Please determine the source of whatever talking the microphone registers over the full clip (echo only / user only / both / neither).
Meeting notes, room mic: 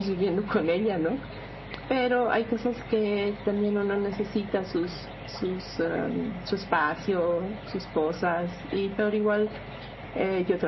echo only